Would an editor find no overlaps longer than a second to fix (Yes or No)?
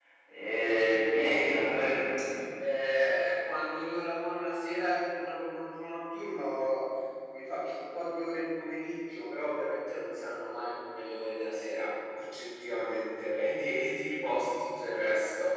Yes